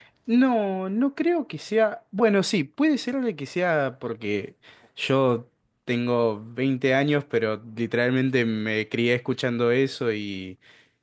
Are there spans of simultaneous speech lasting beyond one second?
No

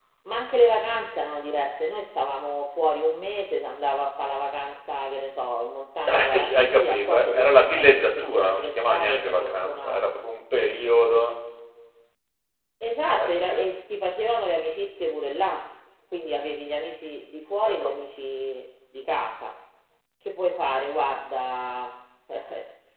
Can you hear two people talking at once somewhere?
Yes, from 6.1 s

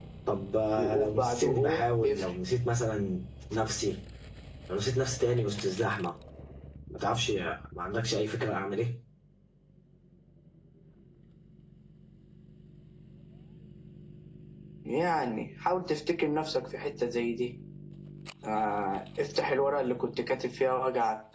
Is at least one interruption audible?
Yes, from 0.8 s

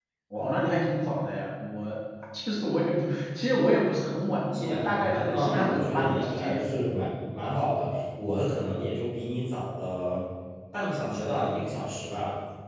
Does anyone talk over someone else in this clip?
Yes, from 4.5 s

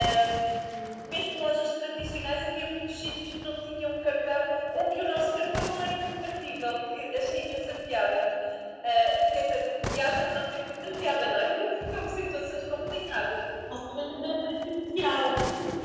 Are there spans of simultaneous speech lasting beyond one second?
No

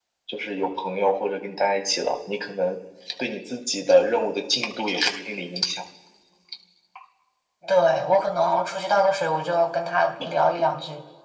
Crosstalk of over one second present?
No

